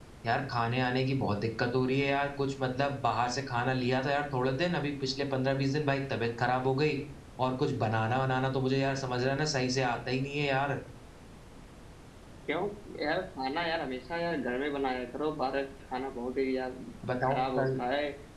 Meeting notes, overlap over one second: none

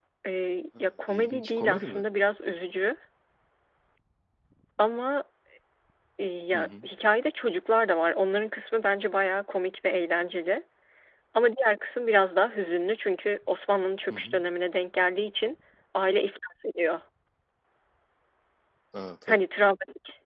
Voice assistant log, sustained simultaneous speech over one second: present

